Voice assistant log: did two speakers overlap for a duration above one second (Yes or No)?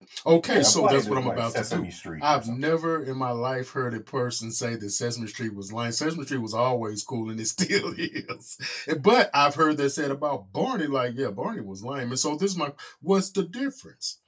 Yes